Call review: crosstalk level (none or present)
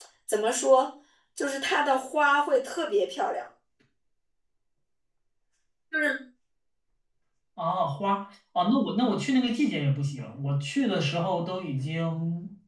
none